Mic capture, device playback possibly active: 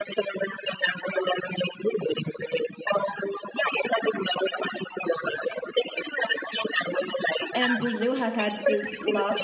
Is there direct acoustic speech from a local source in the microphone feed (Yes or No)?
Yes